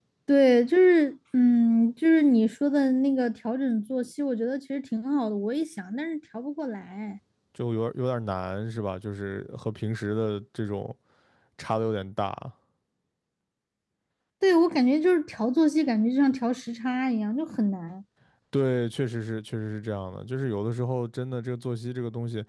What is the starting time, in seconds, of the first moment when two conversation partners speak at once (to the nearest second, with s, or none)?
none